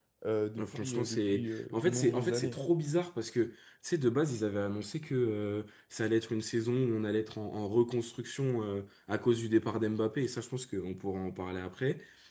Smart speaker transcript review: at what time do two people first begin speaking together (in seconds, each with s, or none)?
0.6 s